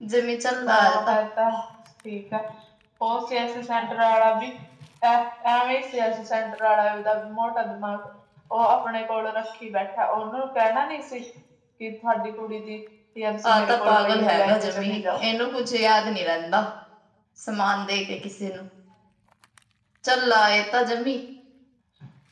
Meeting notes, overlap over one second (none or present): present